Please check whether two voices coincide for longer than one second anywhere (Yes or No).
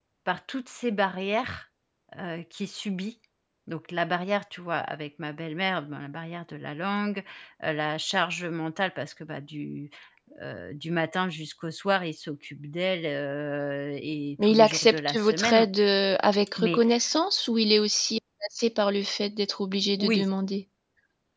Yes